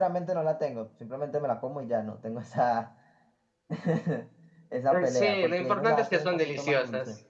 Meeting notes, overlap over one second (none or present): present